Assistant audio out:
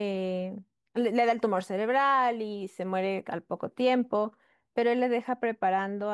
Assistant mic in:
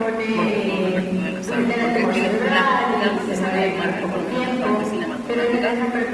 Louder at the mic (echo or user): echo